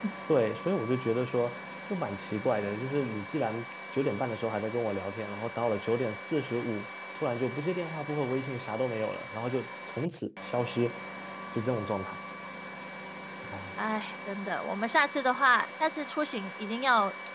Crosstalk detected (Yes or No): No